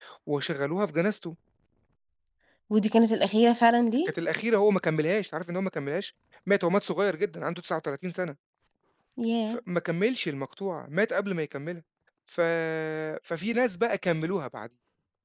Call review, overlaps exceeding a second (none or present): none